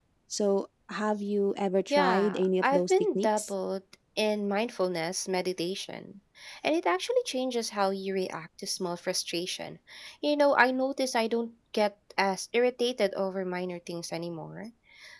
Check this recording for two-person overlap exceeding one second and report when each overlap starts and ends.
1.9-3.5

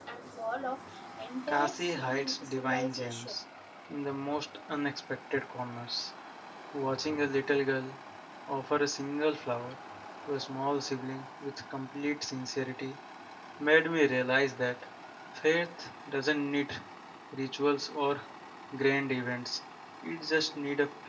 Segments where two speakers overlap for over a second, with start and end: 1.5-3.4

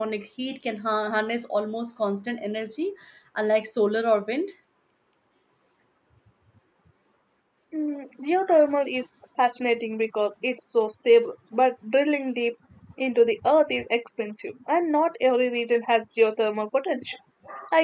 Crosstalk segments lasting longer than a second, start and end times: none

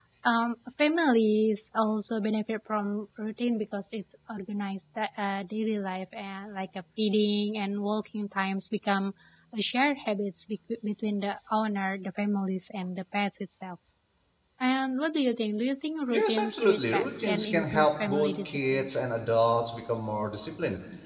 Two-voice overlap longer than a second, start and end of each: 16.1-18.9

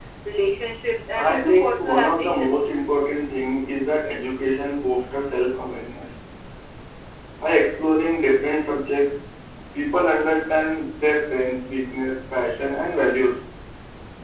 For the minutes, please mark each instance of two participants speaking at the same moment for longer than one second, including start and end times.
1.1-2.7

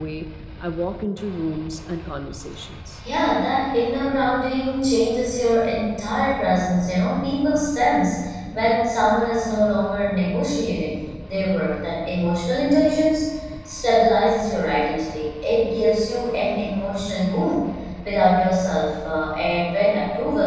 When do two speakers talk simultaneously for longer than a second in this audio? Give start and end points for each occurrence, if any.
none

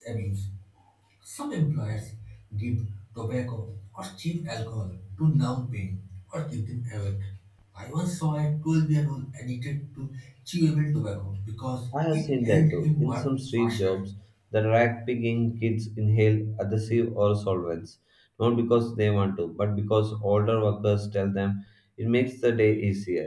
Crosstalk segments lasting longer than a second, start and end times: 12.1-14.0

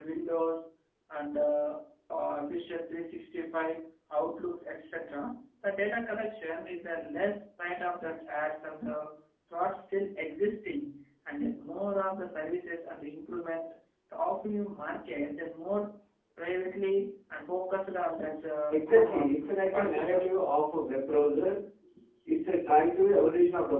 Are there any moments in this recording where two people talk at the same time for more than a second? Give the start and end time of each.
18.7-20.3

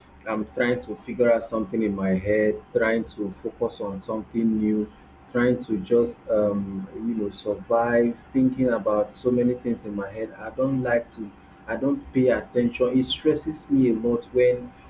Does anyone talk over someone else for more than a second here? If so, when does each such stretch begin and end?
none

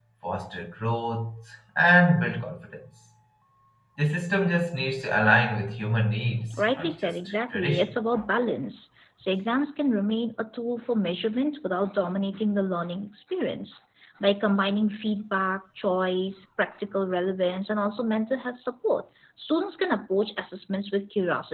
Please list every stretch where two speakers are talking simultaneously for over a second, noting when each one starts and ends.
6.6-7.9

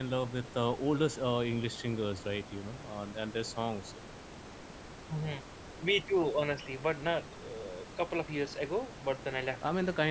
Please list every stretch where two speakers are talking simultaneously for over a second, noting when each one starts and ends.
none

